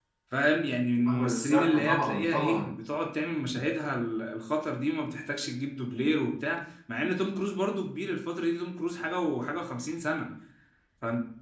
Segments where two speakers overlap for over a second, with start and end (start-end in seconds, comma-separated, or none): 1.1-2.7